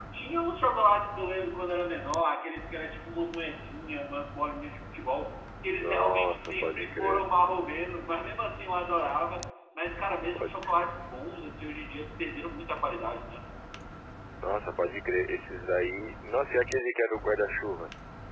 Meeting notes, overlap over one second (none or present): present